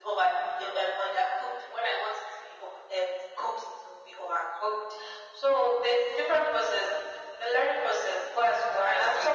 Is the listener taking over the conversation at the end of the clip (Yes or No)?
No